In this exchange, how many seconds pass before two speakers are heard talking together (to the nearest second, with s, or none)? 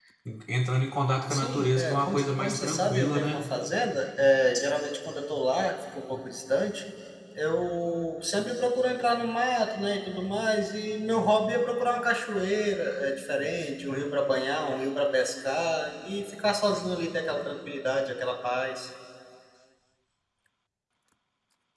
1 s